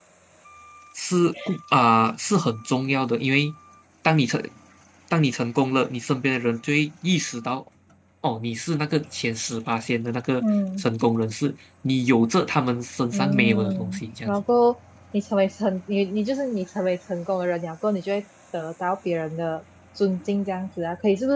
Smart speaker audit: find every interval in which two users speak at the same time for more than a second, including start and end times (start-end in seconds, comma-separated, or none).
13.1-14.4